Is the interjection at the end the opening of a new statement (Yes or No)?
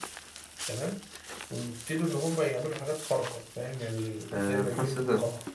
Yes